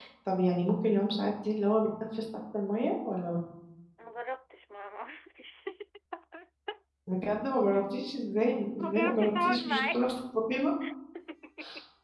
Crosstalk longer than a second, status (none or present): present